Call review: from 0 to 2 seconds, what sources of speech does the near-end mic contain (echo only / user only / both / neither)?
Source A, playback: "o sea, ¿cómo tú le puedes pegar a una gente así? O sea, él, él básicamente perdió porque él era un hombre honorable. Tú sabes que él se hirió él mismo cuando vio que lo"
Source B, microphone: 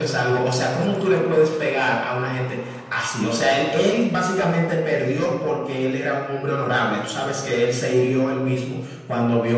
echo only